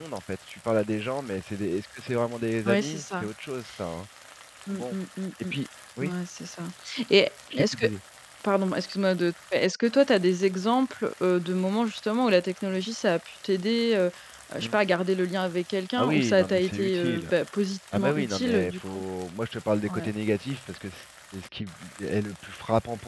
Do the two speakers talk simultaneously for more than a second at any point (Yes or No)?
Yes